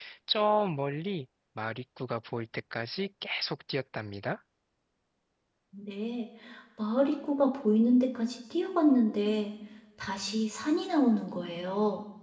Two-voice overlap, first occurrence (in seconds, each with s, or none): none